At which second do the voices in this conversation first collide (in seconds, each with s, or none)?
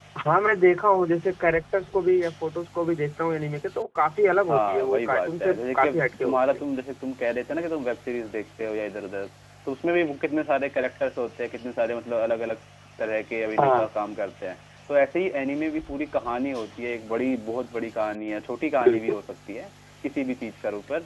4.5 s